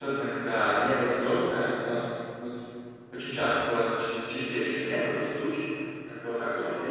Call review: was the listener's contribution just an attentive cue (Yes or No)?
Yes